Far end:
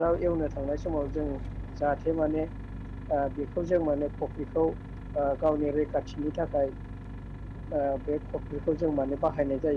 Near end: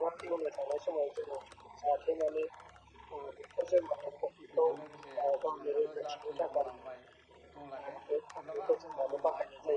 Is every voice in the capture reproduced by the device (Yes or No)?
No